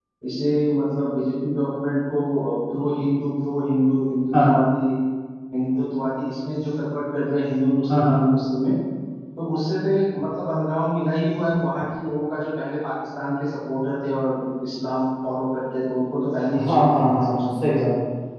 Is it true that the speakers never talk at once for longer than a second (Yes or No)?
No